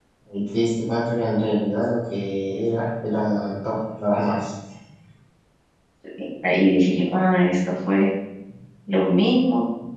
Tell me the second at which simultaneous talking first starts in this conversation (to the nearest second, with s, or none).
none